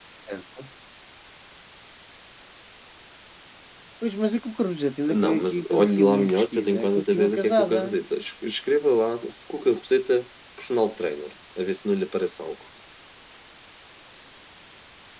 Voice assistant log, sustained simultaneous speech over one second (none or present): present